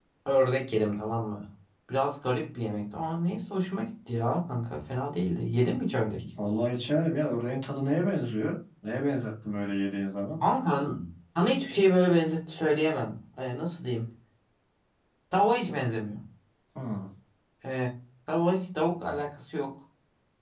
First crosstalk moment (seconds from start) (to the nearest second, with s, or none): none